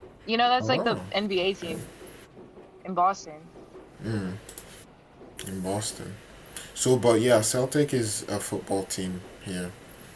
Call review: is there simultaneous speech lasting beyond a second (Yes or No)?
No